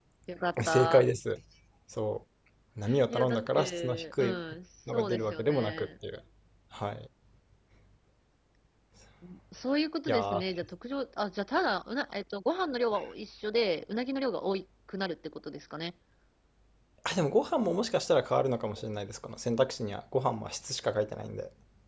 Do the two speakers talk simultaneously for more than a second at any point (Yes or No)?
Yes